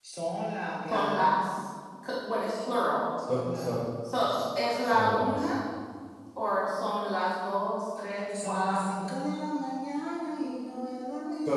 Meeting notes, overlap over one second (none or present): present